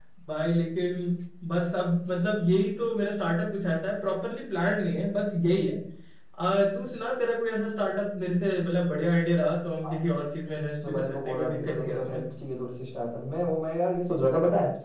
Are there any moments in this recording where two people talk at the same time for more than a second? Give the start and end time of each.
10.8-12.2

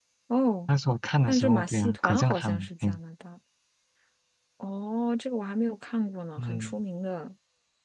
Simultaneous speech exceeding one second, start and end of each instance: 1.3-2.9

